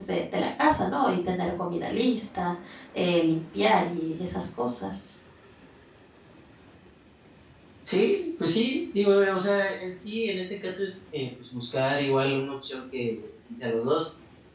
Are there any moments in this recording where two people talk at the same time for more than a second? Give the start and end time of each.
none

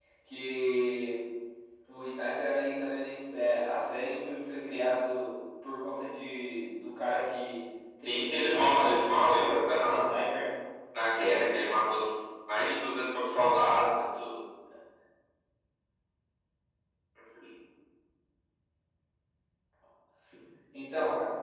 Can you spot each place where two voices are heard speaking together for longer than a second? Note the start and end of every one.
8.1-9.4

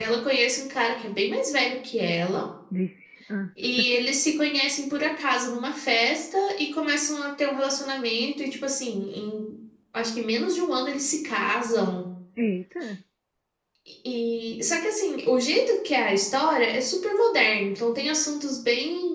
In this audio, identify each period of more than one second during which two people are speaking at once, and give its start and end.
none

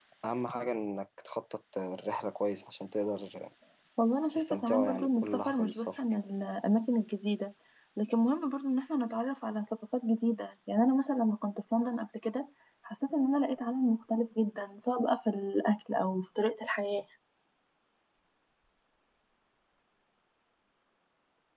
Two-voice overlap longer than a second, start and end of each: 4.3-6.0

